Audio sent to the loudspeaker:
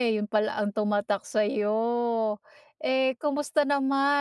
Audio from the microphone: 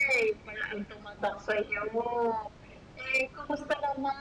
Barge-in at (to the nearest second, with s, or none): none